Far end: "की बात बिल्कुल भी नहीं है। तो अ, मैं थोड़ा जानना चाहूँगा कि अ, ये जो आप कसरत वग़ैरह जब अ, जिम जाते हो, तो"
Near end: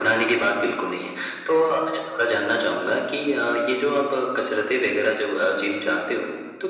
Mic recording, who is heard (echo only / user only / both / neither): echo only